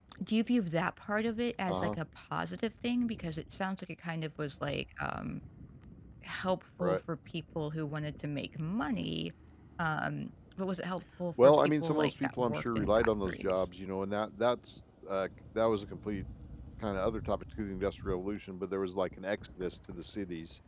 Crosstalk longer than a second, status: present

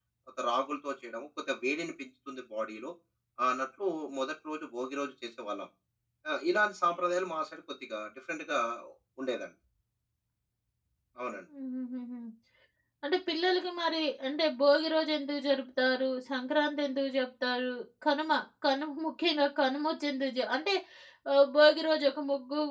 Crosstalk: none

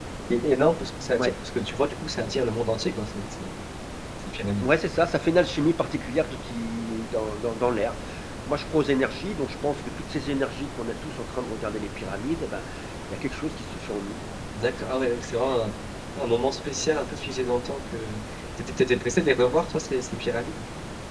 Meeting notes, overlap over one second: none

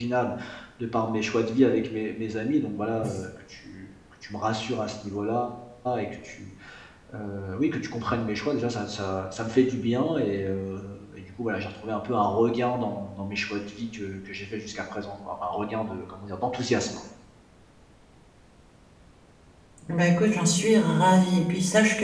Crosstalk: none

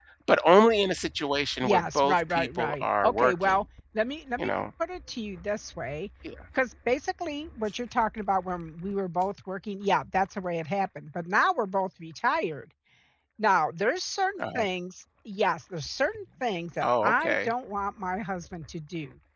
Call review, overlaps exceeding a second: present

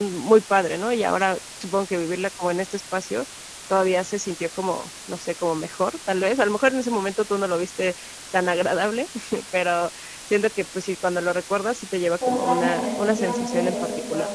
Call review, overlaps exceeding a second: present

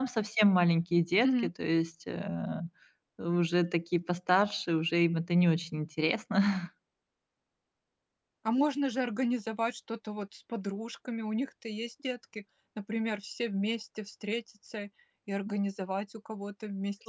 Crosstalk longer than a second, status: none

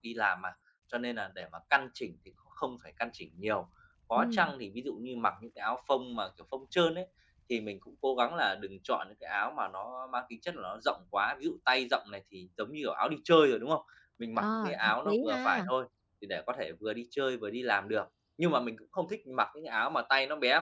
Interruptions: present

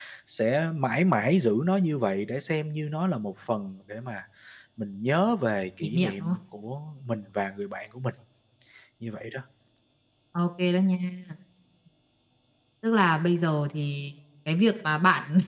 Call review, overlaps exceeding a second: none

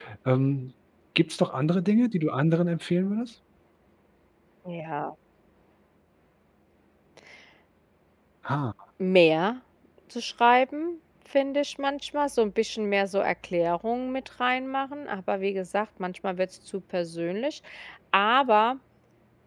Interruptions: none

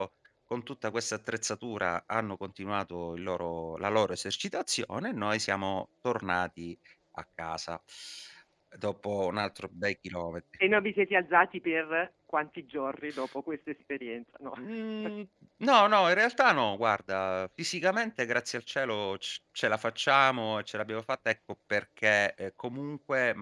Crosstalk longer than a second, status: none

